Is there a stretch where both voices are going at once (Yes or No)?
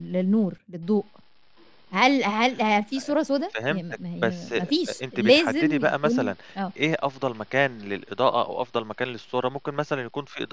Yes